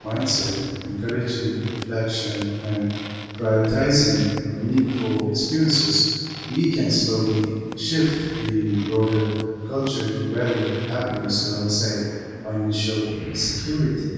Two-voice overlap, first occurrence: none

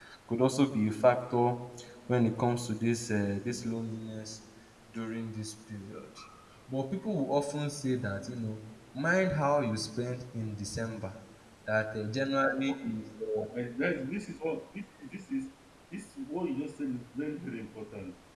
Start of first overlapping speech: none

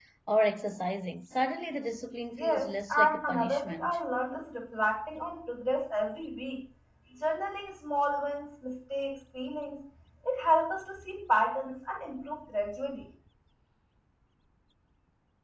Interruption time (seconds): 2 s

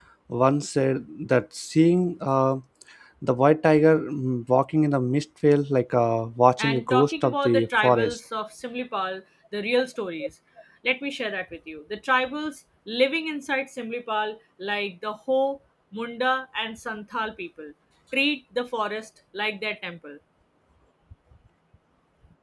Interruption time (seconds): 7 s

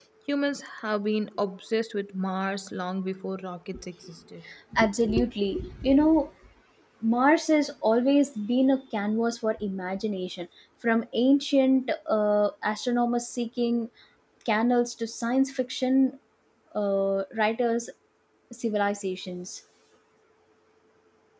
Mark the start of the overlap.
none

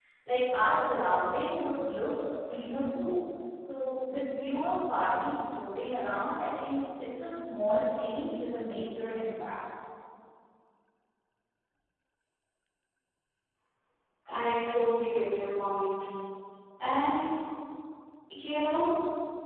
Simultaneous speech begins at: none

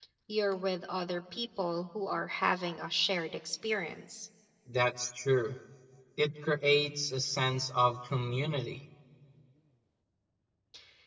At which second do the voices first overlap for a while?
none

